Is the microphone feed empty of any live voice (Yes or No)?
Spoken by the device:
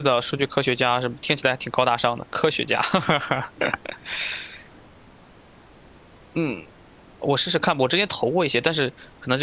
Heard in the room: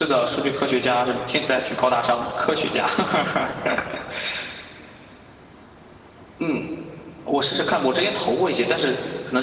Yes